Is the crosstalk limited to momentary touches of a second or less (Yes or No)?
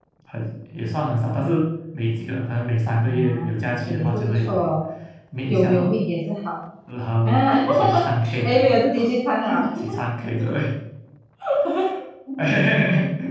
No